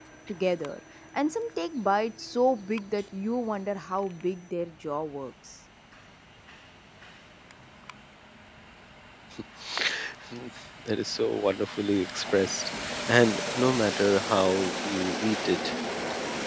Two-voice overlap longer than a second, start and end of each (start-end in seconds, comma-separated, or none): none